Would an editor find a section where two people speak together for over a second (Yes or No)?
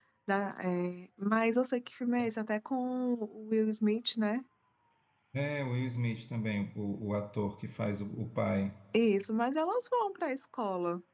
No